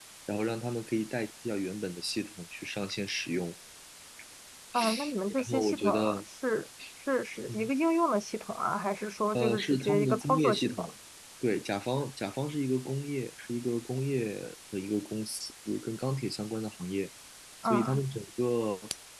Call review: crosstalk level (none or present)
present